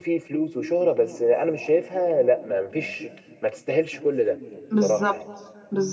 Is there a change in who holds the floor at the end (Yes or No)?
Yes